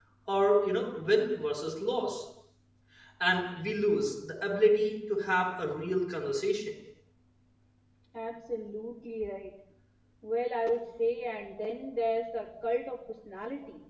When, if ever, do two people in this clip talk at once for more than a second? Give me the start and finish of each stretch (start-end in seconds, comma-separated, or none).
none